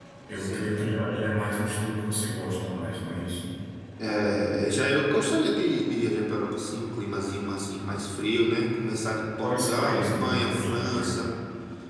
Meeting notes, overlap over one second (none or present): present